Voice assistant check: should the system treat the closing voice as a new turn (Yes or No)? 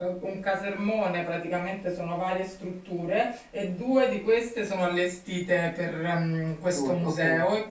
No